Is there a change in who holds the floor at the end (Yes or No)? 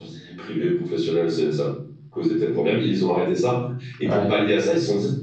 No